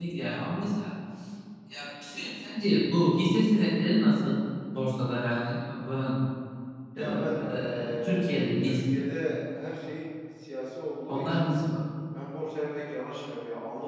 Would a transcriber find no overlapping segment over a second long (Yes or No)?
No